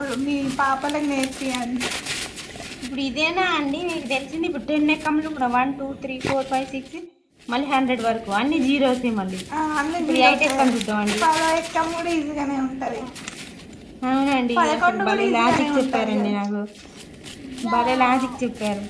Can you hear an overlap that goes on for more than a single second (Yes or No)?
Yes